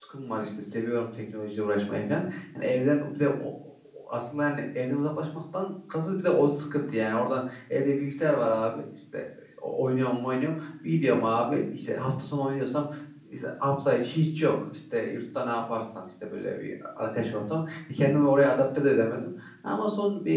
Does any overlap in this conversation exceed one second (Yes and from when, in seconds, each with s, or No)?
No